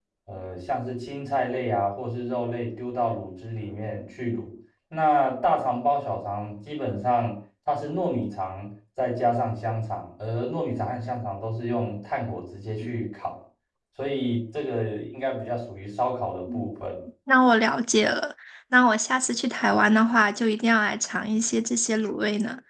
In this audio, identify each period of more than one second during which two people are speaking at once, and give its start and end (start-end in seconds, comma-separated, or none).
none